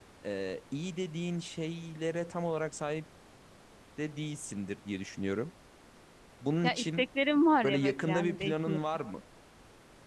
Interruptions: present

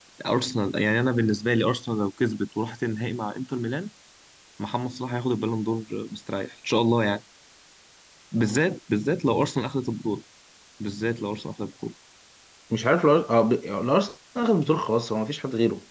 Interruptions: none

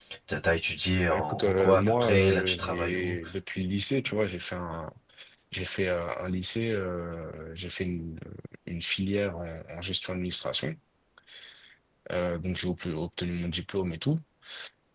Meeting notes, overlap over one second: present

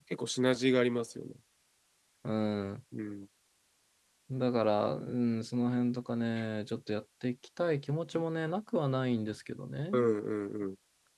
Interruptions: none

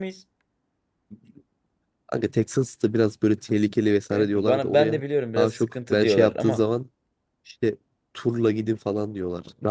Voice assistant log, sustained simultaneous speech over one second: present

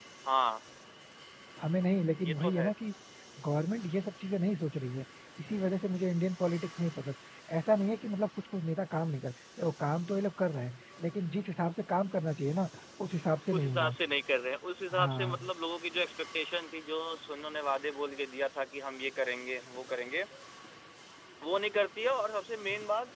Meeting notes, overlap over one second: none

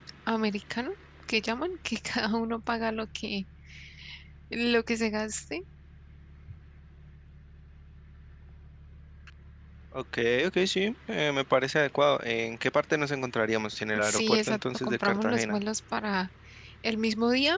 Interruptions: present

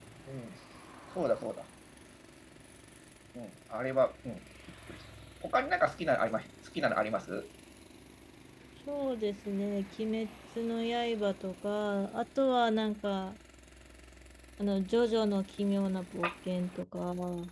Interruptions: none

